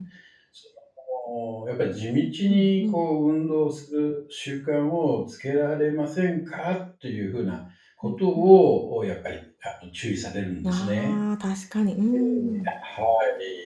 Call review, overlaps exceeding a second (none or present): none